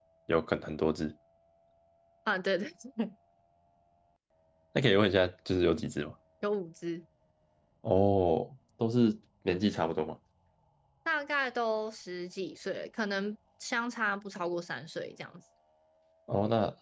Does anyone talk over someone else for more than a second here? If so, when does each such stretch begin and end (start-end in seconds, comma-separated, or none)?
none